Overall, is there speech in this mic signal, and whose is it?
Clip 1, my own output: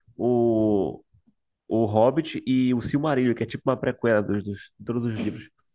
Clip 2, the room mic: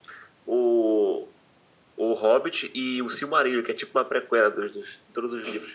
echo only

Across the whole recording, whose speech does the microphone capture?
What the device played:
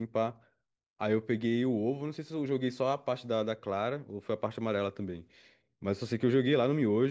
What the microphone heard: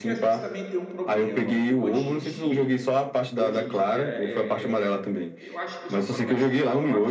both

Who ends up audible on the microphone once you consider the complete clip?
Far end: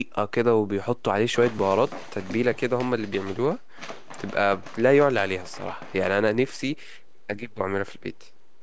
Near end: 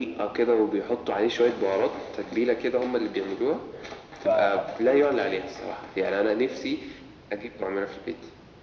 both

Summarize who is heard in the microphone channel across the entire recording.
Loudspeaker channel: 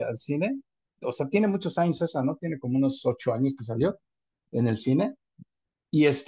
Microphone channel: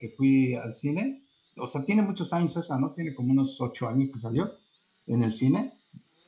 echo only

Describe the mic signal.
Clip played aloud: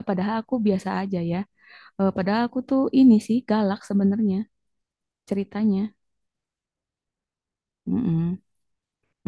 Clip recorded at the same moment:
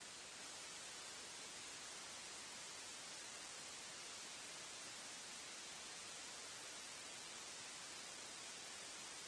neither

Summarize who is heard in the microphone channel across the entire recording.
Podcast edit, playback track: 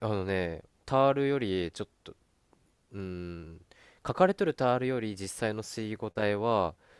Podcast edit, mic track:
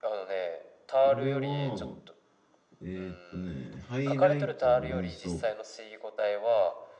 both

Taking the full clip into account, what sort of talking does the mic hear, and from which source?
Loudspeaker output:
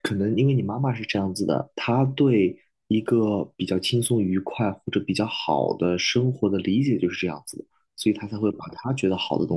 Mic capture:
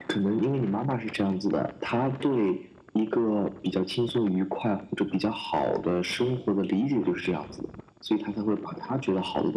echo only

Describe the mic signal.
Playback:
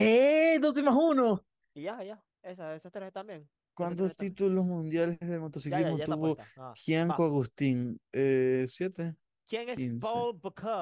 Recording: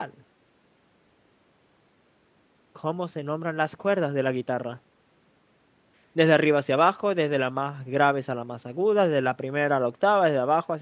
user only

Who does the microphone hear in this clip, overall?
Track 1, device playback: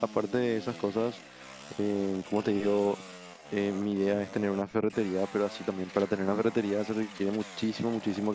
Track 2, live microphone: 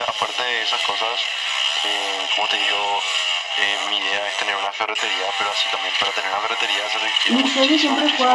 both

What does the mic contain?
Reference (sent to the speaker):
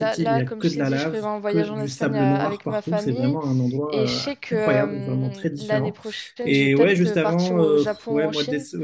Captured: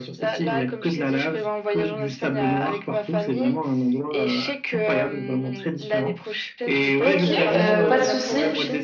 both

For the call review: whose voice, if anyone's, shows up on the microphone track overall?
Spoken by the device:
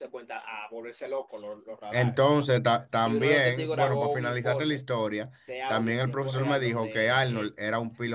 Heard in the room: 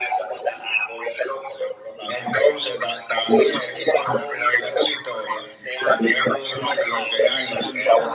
both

